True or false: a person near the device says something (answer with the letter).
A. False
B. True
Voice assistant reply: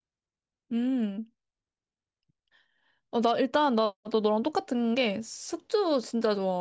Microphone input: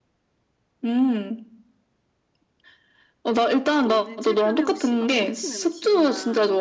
B